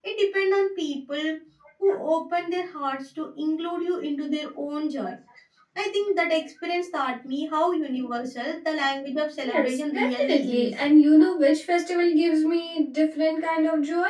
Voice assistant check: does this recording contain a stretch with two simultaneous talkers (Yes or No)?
Yes